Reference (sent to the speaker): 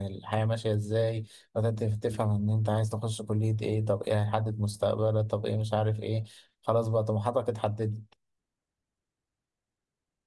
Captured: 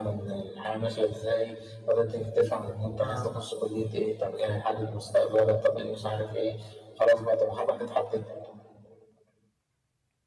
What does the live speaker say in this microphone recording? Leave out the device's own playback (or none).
آه. آه.